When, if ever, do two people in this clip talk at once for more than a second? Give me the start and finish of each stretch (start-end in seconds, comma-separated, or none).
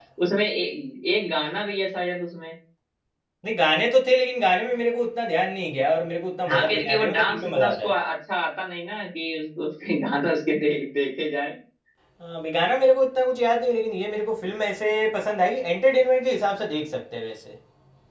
6.5-7.9